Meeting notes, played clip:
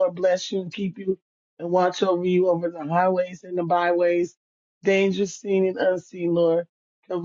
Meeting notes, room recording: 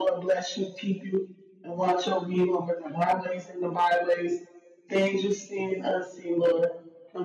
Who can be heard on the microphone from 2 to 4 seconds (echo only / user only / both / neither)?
echo only